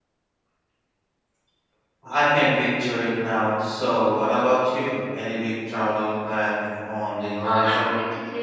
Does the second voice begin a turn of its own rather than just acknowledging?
Yes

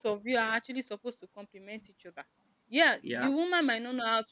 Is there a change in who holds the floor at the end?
No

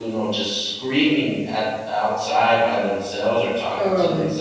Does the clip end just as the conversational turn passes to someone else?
No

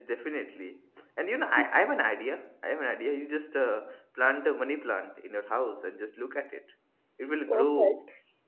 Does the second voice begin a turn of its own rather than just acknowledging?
No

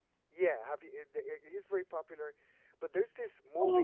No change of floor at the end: No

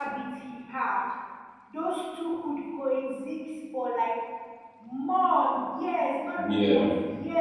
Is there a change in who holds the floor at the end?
Yes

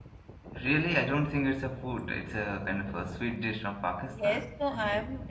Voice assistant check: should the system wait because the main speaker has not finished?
No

